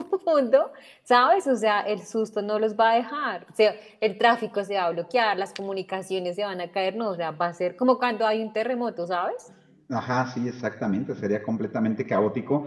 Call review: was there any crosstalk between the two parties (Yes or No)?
No